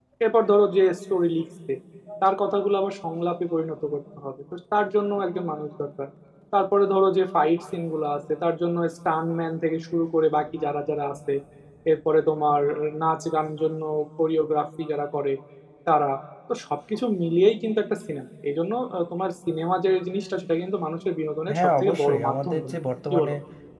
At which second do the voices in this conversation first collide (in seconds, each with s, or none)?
21.5 s